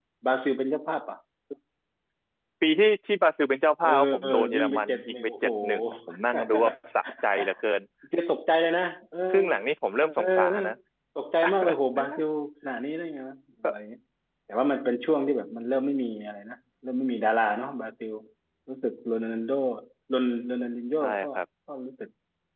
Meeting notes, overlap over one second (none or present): present